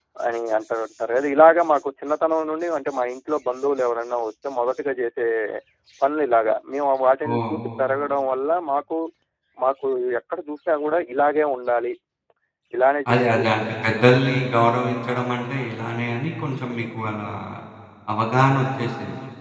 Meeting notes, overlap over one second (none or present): none